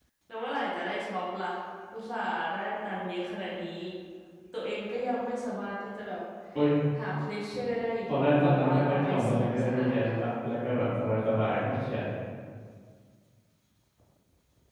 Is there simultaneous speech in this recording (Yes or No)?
Yes